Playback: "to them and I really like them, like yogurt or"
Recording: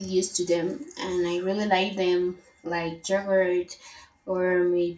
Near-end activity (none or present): none